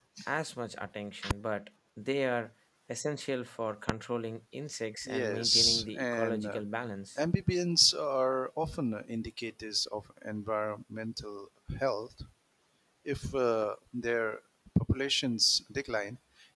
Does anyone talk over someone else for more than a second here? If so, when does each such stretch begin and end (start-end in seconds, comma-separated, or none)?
5.0-6.6